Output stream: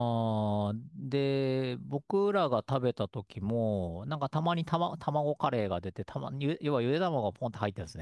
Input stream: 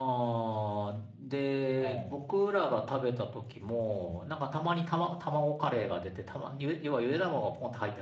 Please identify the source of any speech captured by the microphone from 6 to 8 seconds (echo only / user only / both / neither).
echo only